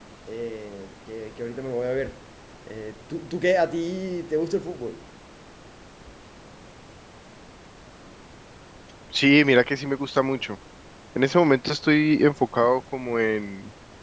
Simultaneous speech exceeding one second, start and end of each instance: none

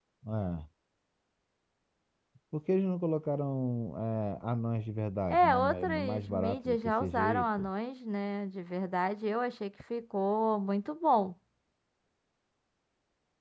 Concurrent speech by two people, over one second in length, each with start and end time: 5.3-7.7

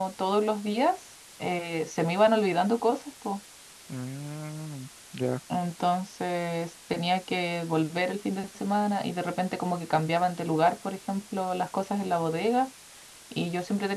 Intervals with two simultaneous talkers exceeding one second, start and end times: none

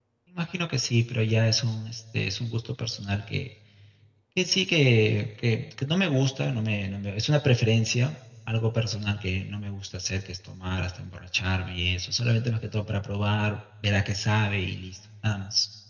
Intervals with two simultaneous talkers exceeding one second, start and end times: none

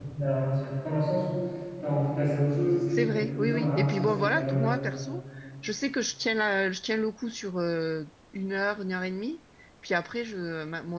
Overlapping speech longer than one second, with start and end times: 2.9-4.7

